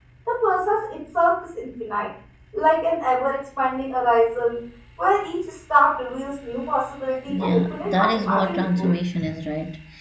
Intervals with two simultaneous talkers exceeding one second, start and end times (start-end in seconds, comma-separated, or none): 7.3-8.9